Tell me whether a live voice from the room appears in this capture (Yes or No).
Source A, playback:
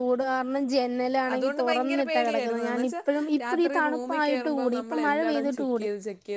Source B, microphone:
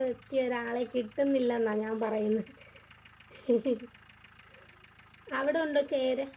Yes